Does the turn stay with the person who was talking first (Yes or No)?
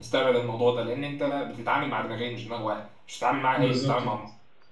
No